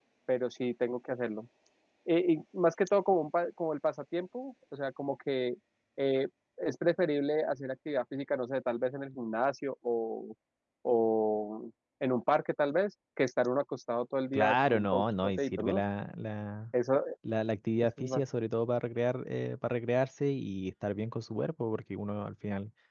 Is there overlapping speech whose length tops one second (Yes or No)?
Yes